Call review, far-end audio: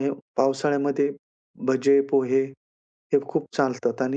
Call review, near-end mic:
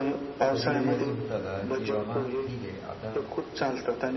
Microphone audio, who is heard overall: both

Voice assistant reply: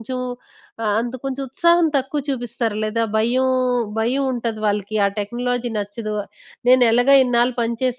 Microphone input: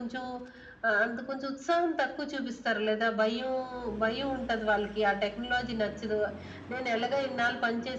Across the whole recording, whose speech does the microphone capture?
echo only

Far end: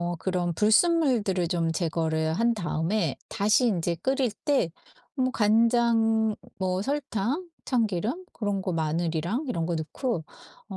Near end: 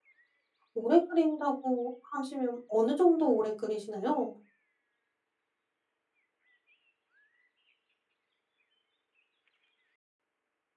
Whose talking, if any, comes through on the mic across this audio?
user only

